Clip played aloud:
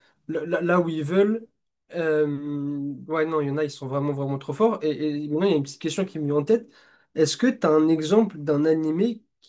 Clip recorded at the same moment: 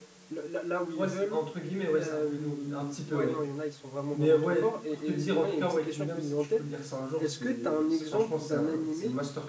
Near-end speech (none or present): present